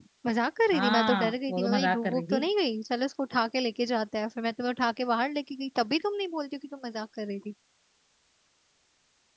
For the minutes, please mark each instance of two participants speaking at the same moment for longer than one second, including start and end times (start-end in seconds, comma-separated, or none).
0.7-2.4